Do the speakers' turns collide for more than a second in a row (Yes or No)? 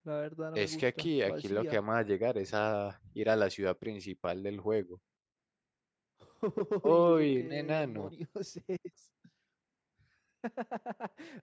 Yes